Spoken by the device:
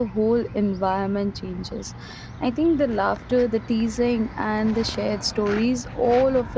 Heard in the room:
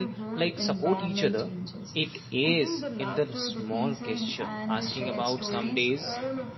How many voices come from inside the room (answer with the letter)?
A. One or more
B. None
A